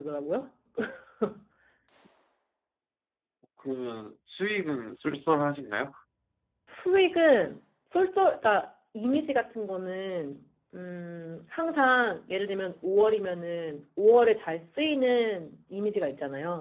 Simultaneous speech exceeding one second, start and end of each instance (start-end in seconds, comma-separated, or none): none